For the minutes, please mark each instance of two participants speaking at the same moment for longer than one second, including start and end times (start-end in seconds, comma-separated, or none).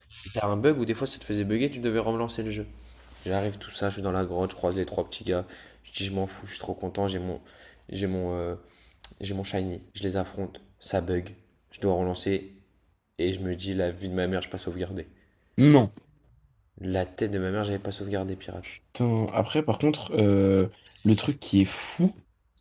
none